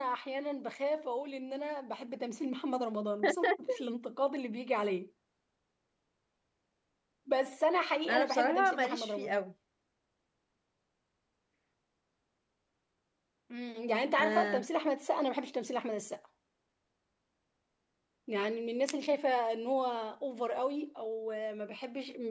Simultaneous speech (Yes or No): Yes